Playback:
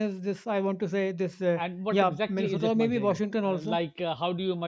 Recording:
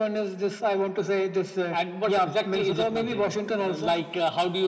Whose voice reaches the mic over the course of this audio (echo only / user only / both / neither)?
echo only